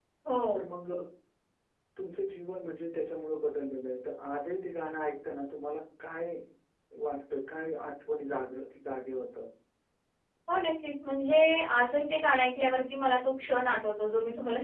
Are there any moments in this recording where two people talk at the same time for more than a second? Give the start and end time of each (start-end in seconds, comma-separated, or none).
none